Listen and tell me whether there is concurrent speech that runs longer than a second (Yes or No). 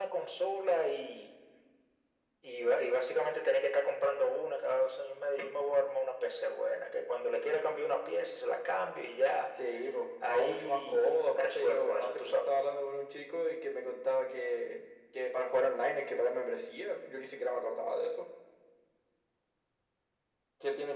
Yes